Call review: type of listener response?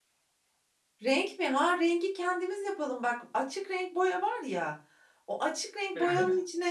listening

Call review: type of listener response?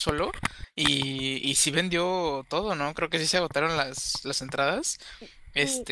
taking over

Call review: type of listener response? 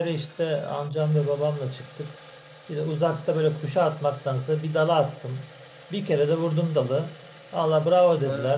listening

